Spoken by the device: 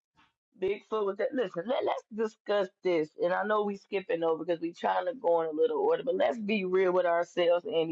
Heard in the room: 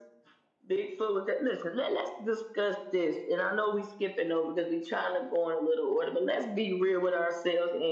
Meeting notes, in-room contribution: none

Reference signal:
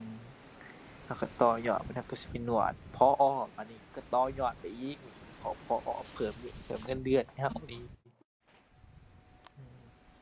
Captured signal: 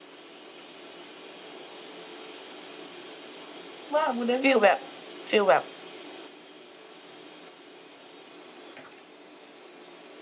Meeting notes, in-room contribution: present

